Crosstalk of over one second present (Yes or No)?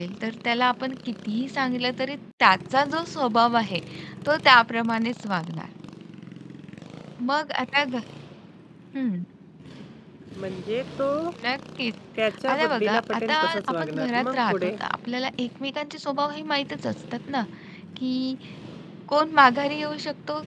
Yes